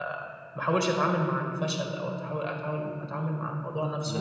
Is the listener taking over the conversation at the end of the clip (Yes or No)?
No